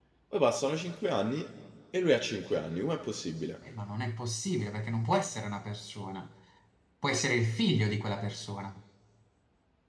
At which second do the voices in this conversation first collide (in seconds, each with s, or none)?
none